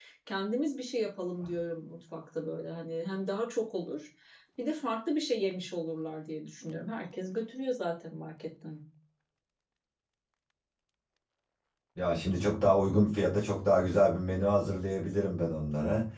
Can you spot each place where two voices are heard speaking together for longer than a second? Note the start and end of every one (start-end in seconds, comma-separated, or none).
none